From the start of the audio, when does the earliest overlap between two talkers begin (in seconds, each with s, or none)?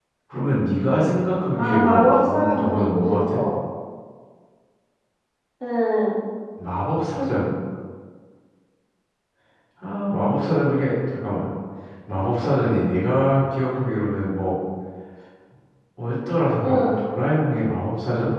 1.6 s